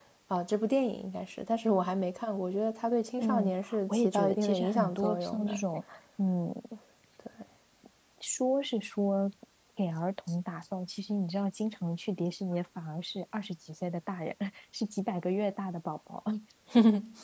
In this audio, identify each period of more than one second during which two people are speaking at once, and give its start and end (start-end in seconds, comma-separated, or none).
3.2-5.6